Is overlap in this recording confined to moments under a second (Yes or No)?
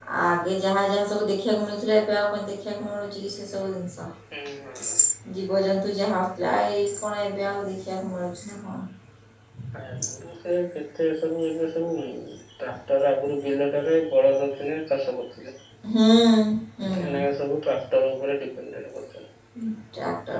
Yes